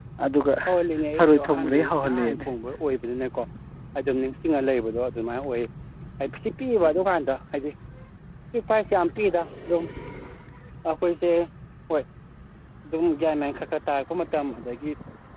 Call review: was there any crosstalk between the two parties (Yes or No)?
Yes